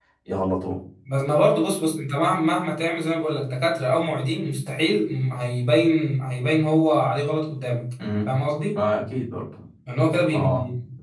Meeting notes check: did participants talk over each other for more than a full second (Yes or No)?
No